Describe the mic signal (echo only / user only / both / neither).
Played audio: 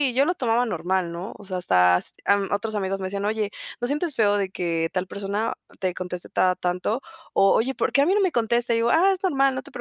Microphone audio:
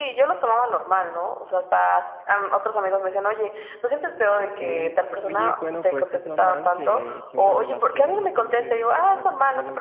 both